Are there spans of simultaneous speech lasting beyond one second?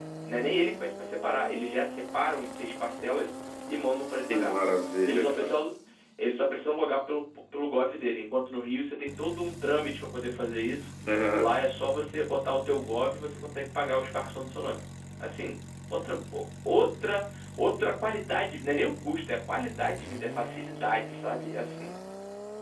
No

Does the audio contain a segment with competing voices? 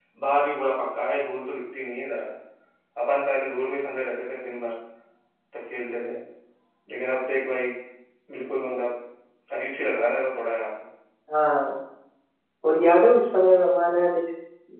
No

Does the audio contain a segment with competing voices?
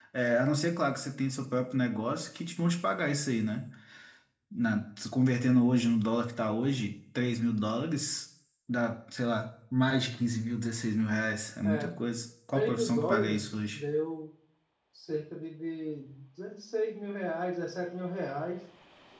Yes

